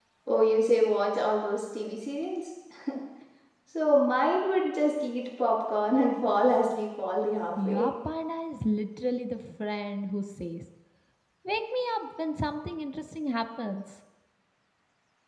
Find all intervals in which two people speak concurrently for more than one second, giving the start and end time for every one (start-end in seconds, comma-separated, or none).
none